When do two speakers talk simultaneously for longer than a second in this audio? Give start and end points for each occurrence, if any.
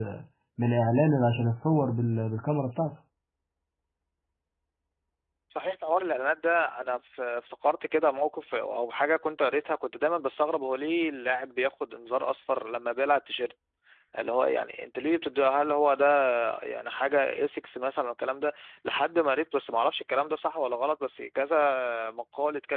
none

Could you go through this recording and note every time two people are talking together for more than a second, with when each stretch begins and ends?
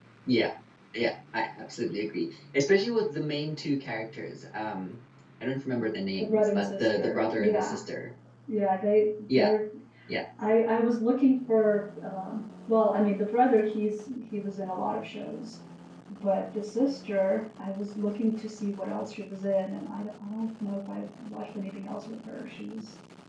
6.2-7.8

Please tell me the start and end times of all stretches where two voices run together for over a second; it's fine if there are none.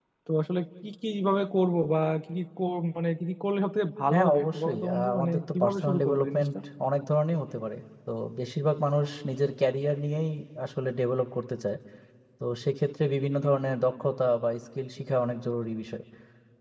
4.1-6.6

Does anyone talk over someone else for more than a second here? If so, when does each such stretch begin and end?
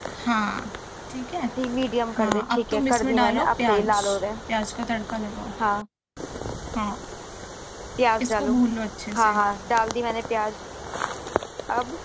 2.2-4.0

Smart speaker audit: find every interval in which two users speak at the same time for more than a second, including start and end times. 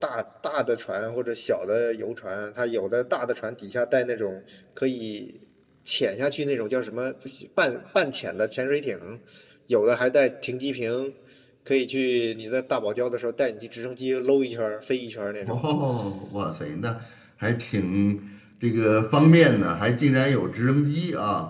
none

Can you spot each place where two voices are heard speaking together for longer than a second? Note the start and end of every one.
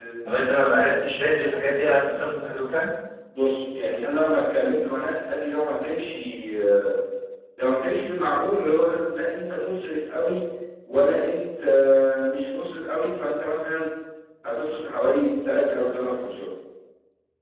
none

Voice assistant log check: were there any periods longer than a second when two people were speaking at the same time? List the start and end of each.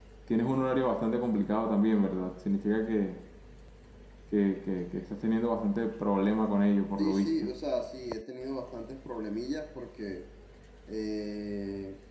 none

